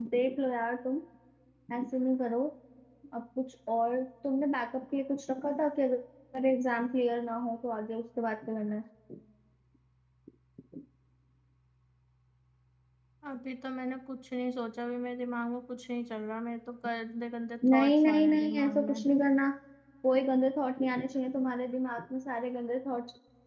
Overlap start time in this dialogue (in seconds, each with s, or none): 17.6 s